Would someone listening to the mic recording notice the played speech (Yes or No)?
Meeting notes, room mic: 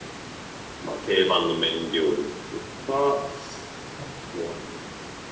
Yes